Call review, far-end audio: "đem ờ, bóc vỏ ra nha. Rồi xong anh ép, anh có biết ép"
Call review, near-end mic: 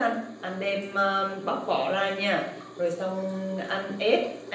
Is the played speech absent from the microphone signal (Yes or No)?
No